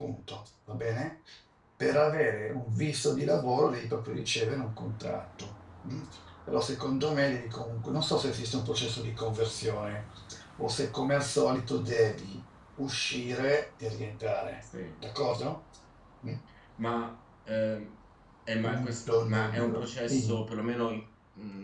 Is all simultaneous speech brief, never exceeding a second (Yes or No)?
No